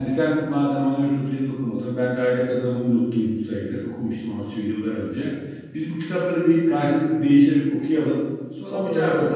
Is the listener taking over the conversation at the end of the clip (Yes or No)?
No